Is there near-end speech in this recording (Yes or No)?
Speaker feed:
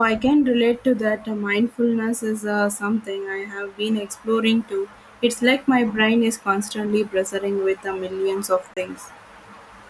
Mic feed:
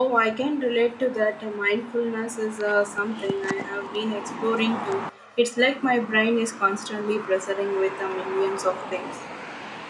No